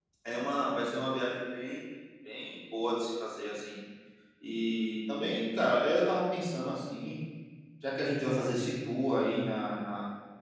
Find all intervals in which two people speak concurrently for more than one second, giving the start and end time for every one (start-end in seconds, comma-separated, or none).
none